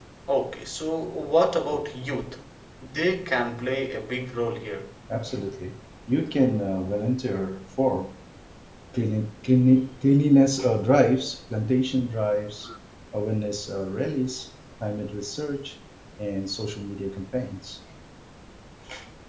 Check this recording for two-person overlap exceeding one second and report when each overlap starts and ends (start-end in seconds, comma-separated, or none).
none